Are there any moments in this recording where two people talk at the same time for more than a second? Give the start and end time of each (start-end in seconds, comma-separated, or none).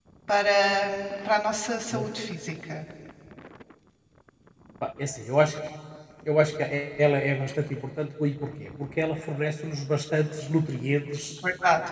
none